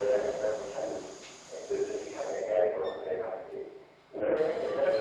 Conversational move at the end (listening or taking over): listening